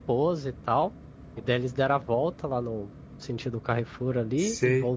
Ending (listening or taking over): listening